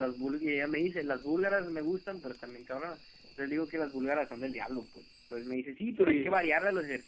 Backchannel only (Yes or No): Yes